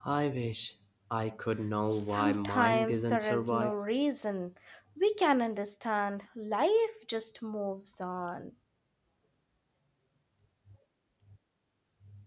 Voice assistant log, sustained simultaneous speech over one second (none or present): present